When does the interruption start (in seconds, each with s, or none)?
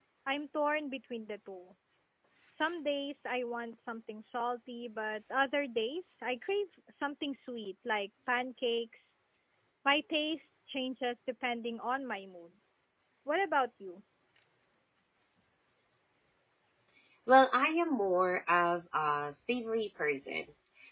none